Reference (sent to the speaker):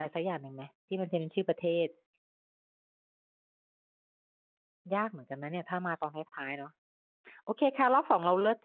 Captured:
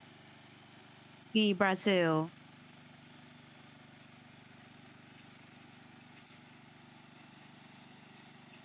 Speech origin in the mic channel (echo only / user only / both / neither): user only